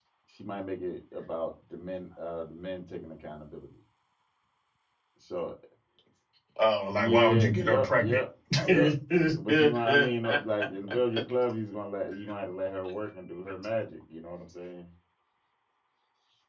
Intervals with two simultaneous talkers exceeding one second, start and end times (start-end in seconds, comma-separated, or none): 7.0-8.2